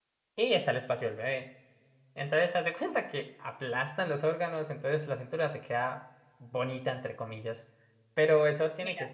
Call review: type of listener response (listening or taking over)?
listening